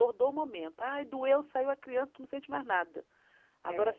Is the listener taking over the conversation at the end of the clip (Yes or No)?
No